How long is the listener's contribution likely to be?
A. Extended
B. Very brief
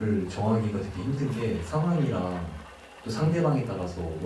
B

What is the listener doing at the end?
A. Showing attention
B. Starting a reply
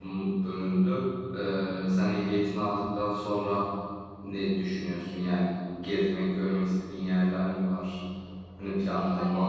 B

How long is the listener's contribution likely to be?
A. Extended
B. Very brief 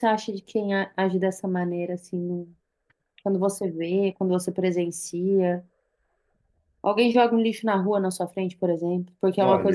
A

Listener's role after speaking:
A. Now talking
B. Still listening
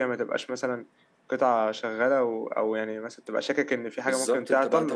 A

